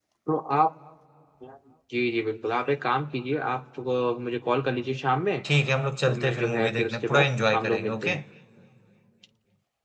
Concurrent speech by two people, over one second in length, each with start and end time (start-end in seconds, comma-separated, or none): 6.0-8.1